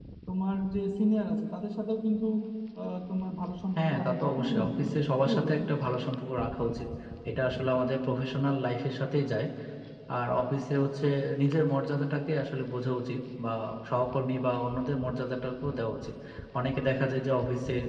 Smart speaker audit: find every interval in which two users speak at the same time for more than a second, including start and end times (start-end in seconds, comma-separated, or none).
3.8-5.7